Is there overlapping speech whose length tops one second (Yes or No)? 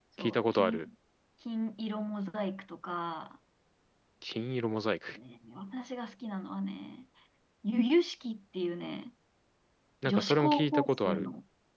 Yes